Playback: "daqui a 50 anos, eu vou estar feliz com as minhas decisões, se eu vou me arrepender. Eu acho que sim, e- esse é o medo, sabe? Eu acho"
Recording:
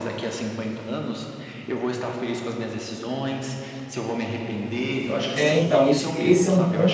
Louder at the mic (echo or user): user